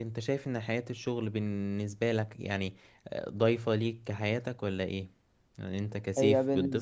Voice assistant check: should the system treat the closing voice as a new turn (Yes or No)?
Yes